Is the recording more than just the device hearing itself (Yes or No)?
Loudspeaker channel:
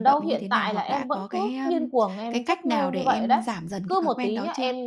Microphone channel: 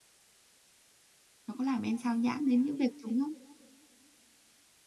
Yes